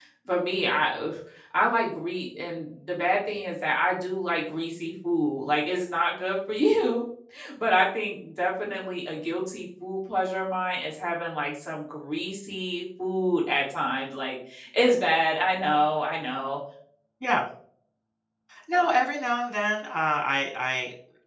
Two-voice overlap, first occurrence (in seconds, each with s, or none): none